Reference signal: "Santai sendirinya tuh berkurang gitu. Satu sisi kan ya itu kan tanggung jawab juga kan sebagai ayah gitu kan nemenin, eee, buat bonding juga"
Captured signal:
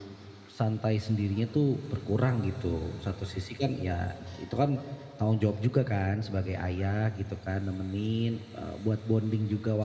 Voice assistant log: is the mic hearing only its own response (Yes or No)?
Yes